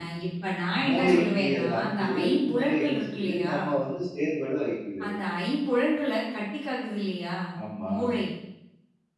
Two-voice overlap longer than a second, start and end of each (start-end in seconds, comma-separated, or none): 0.9-3.5